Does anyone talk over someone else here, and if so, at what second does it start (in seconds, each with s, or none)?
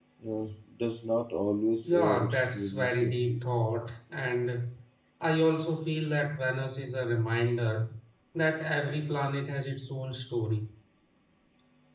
1.8 s